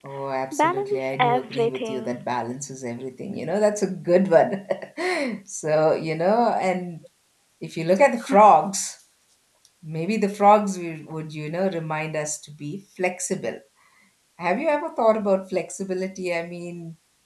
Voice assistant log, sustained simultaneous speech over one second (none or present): present